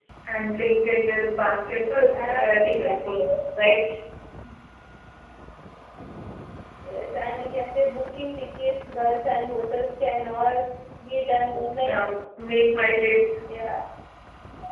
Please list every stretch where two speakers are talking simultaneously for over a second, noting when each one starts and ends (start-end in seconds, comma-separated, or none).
1.6-3.2